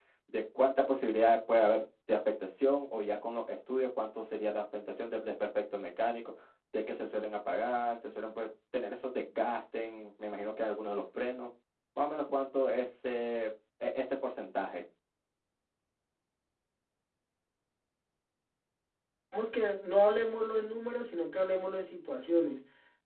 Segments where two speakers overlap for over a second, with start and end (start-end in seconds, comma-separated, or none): none